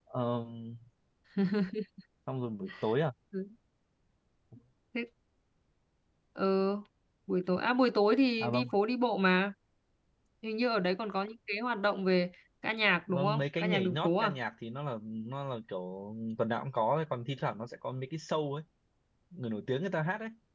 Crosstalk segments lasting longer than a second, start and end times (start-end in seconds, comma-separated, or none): 13.1-14.3